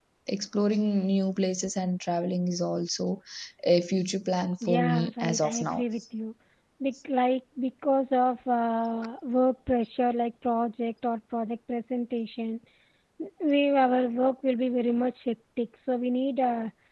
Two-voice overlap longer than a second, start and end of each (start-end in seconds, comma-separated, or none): 4.6-5.8